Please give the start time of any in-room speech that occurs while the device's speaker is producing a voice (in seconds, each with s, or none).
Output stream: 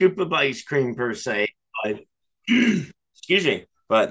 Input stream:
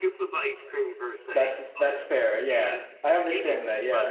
1.3 s